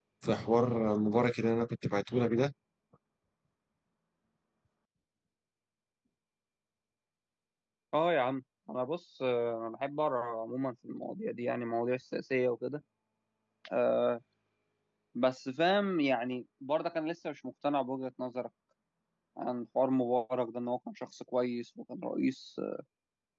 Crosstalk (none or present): none